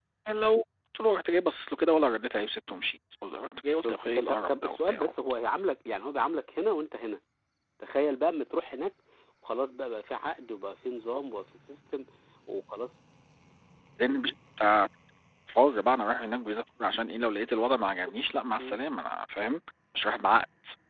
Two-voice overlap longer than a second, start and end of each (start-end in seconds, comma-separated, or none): 3.8-5.1